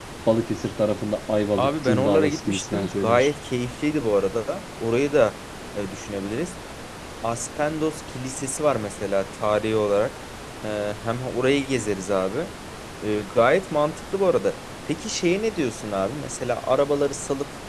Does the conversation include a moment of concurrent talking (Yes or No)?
Yes